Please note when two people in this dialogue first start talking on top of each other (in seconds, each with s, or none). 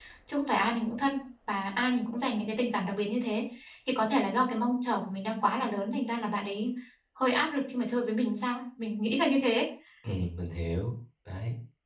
none